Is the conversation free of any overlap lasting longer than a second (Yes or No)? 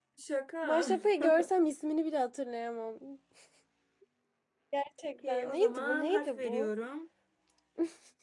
No